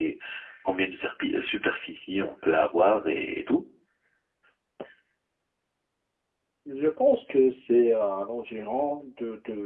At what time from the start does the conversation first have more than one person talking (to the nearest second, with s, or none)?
none